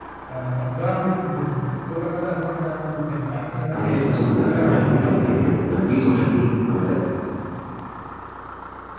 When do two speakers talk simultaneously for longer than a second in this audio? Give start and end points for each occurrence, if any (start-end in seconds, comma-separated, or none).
3.7-5.4